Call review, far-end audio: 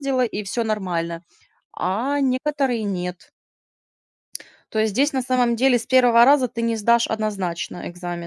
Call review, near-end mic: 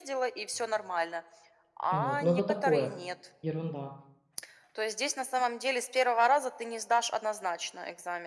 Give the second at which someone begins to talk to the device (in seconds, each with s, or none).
1.9 s